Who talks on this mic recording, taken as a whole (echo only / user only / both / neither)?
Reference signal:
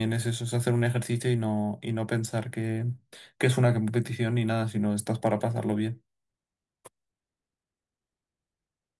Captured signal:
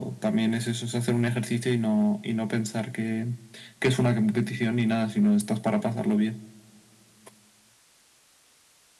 echo only